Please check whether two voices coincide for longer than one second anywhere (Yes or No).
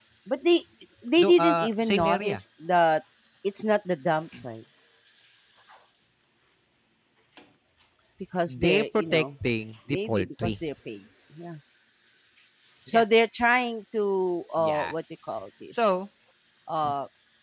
Yes